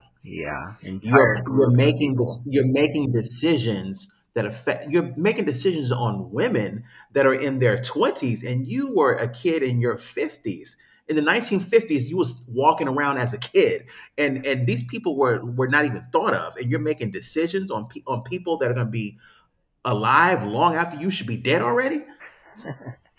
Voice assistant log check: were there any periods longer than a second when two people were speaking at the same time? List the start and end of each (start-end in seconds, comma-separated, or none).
1.0-2.4